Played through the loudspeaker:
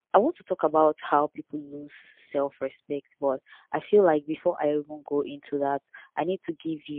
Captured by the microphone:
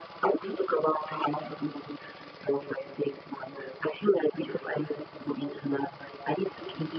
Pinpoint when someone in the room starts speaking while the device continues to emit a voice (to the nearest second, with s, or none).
none